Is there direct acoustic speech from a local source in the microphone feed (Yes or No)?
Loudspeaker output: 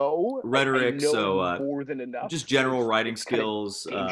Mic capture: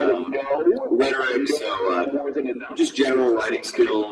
No